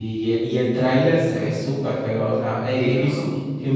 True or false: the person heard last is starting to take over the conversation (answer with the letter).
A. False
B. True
A